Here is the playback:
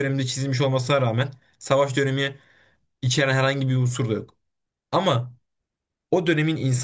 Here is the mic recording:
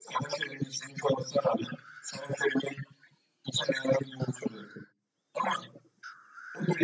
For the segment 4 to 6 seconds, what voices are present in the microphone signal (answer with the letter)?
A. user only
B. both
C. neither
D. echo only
D